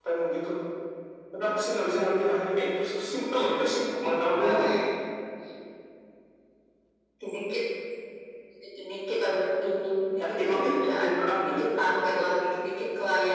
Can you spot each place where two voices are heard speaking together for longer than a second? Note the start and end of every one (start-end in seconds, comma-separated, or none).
10.2-11.6